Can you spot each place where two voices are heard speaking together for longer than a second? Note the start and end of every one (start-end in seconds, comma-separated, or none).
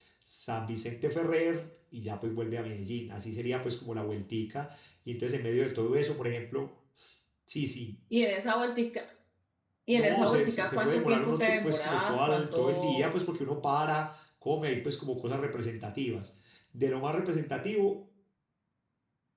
9.9-13.1